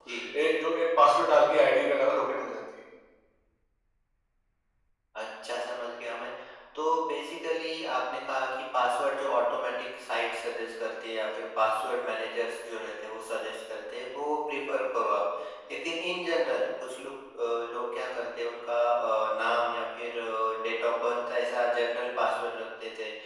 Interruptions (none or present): none